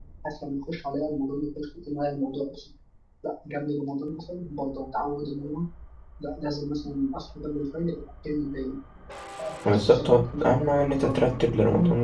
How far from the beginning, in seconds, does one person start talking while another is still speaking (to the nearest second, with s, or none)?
10 s